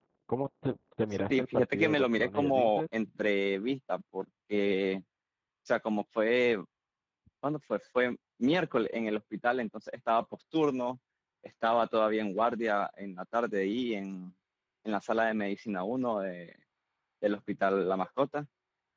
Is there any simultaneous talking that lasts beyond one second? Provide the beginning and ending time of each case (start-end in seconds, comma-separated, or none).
1.3-2.8